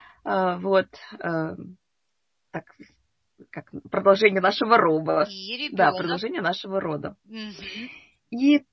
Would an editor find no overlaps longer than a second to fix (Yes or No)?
Yes